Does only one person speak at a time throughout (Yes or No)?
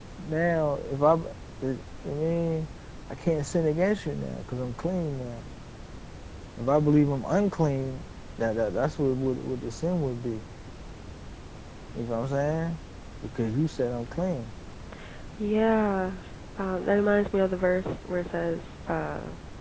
Yes